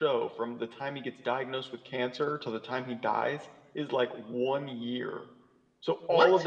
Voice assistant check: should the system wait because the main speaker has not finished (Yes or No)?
Yes